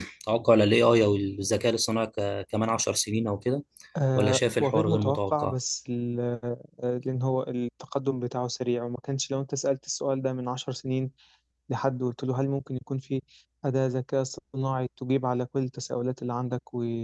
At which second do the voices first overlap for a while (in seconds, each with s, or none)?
4.2 s